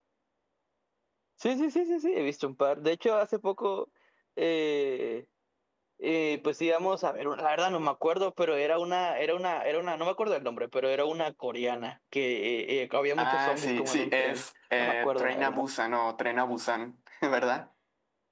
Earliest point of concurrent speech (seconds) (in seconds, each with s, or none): 13.2 s